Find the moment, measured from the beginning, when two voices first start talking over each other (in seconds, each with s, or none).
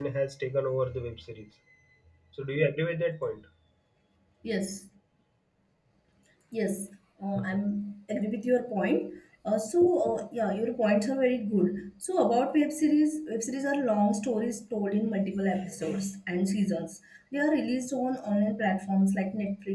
none